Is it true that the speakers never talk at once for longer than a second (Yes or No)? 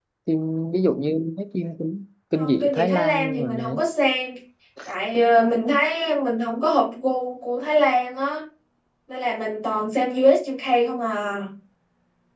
No